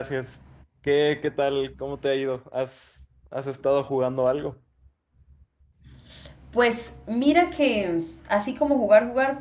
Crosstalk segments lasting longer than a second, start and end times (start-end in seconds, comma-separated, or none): none